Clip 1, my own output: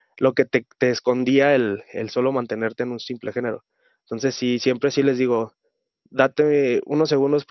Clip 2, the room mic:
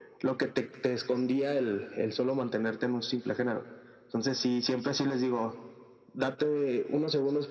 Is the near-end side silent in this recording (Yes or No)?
Yes